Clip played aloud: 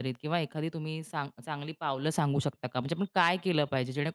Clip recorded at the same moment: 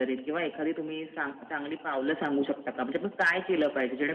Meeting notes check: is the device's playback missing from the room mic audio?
No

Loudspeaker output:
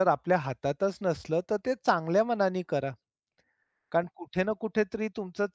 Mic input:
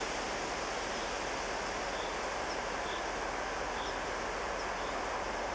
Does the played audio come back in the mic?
No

